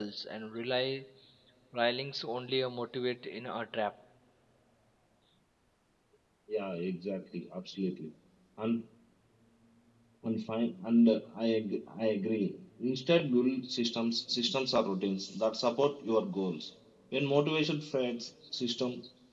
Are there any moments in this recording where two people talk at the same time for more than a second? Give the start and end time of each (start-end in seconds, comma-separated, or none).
none